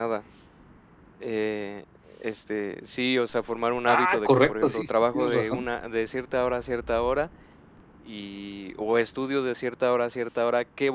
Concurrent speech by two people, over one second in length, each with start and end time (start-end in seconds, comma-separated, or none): 3.9-5.7